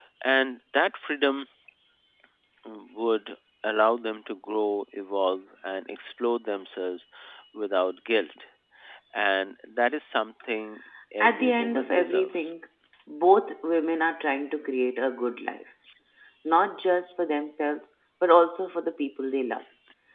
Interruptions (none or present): present